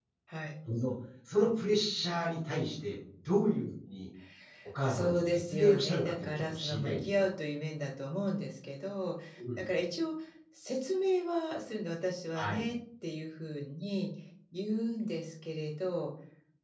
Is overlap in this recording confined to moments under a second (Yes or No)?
No